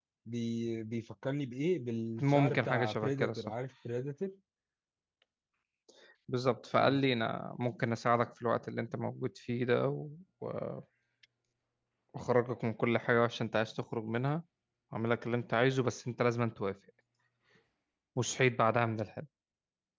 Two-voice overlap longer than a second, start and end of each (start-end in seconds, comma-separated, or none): 2.2-3.5